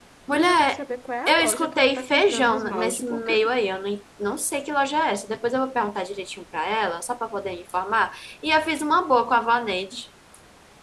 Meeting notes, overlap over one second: present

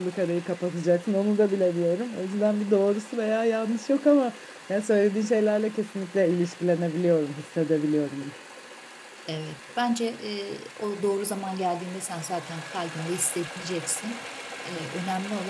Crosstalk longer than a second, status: none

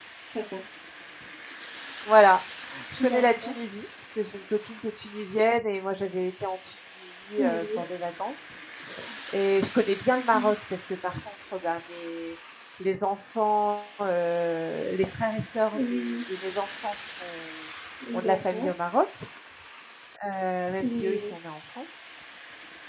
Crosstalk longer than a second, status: none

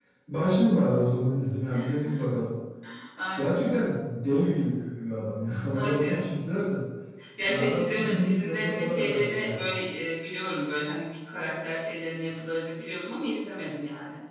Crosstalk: present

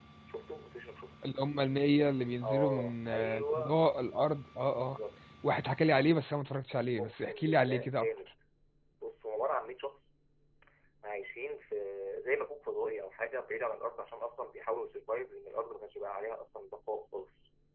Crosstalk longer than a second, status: present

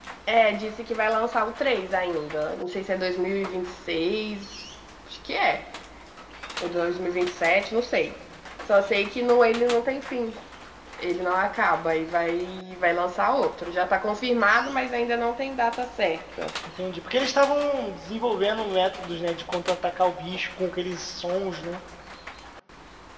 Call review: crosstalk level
none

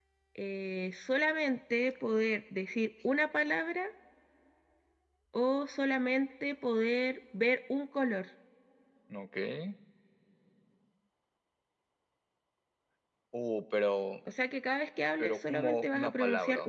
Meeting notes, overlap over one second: present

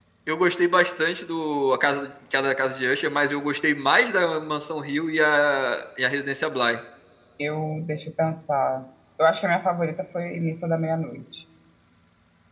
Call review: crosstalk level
none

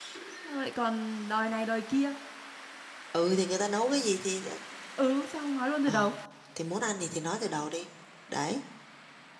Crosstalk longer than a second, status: none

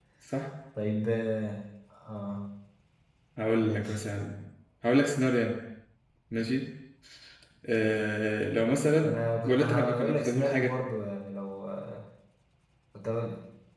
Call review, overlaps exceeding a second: present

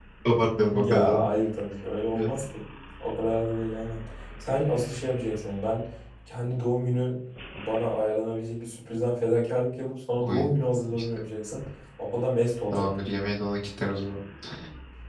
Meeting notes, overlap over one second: none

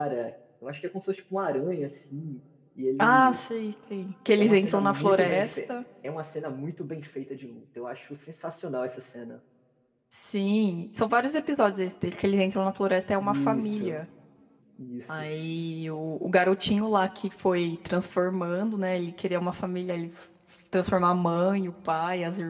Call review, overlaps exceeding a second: present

